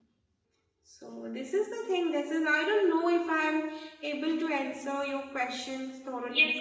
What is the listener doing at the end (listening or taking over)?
taking over